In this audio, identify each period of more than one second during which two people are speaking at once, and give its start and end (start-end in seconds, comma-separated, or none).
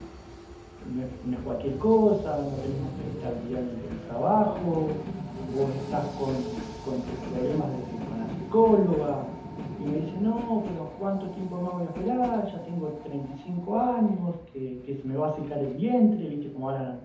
none